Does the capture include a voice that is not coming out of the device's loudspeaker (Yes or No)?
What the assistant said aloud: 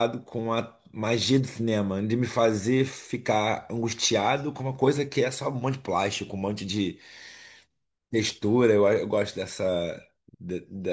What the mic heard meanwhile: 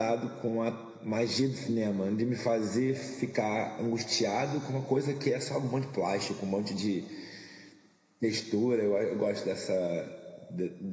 No